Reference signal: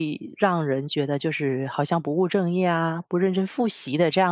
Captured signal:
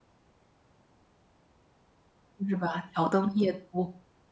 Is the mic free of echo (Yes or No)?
Yes